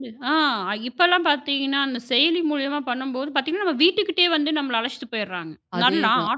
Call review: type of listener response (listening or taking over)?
listening